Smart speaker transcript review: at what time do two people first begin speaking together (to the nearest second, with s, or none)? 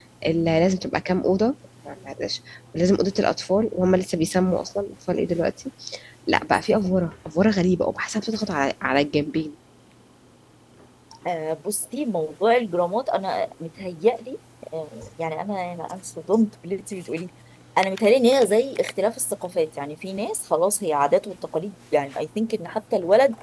none